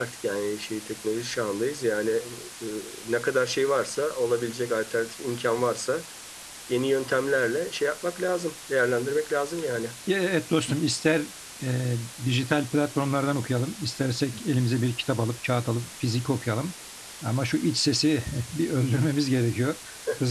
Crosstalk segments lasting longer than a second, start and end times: none

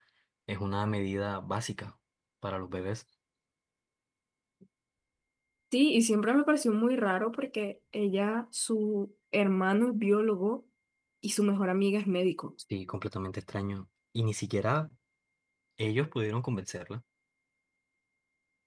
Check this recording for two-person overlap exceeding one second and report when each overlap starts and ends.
none

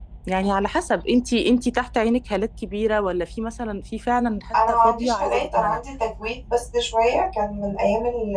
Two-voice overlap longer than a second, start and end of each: 4.5-5.8

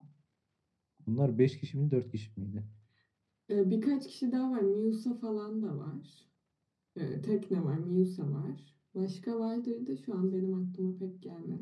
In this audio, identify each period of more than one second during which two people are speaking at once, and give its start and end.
none

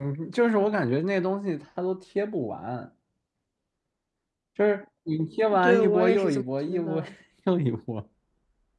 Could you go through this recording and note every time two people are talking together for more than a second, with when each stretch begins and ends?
5.6-7.0

